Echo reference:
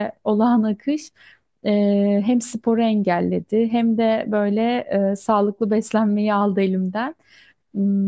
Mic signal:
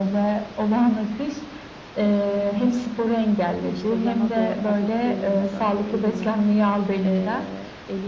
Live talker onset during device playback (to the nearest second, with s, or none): 4 s